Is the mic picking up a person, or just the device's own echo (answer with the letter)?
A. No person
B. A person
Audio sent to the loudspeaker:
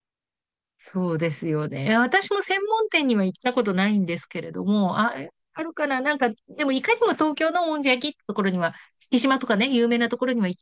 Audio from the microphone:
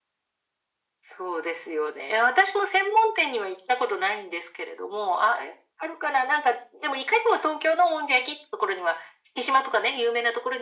A